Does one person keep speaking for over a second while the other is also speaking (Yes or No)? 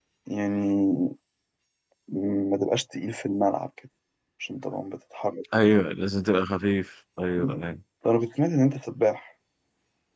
No